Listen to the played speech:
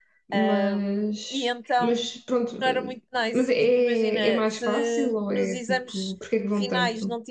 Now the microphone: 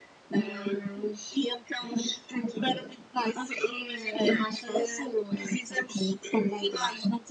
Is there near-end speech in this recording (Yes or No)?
No